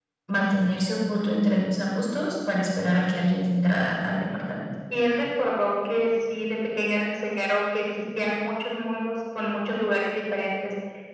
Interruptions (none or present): none